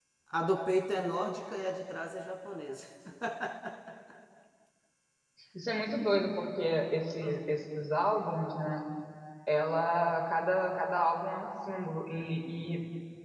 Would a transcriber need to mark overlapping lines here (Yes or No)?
No